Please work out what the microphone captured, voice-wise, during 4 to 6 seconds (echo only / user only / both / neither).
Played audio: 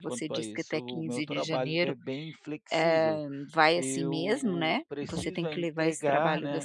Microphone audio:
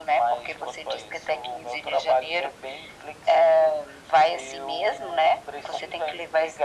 echo only